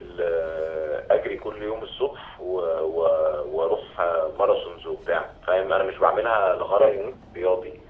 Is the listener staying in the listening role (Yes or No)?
Yes